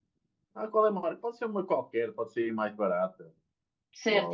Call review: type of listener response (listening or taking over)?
taking over